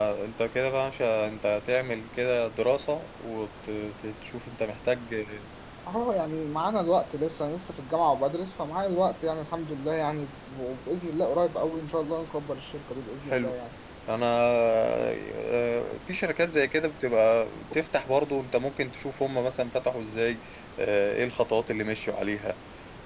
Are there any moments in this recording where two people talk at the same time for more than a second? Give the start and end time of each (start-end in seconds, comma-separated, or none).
none